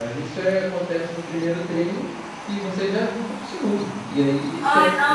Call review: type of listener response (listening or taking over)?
taking over